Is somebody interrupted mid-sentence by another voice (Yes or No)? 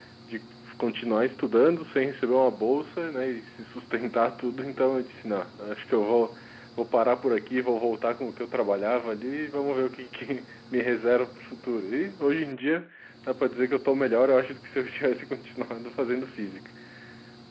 No